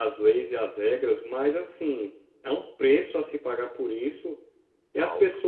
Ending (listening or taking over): listening